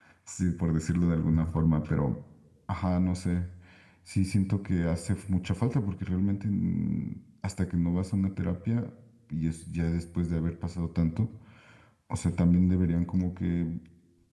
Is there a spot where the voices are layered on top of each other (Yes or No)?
No